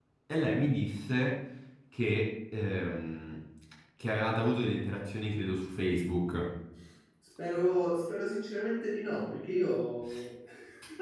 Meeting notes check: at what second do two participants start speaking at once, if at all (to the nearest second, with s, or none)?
none